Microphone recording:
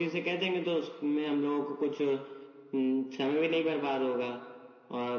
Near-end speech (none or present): none